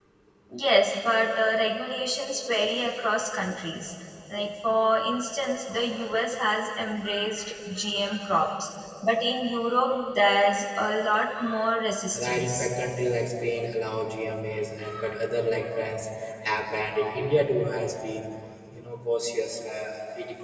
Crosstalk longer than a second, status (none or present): none